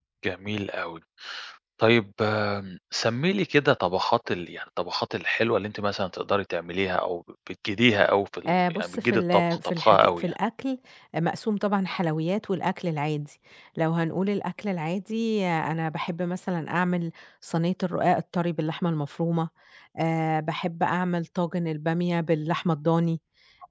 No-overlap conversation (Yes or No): No